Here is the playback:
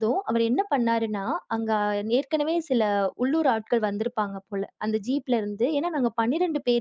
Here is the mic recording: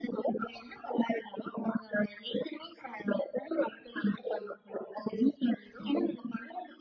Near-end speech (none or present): none